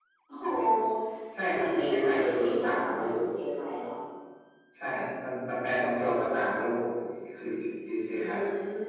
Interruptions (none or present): present